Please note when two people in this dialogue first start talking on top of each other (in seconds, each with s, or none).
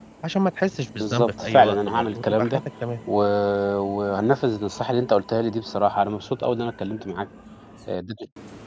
1.0 s